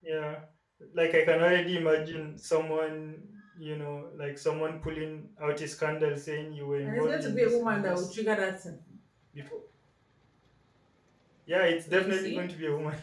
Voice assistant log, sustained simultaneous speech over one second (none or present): present